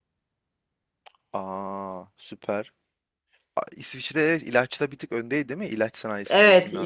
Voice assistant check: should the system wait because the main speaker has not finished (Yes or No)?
No